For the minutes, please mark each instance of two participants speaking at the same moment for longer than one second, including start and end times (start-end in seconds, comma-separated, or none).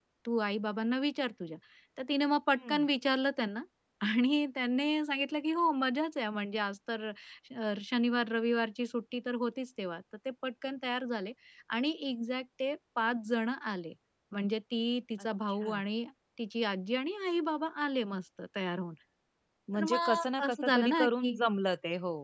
19.7-21.4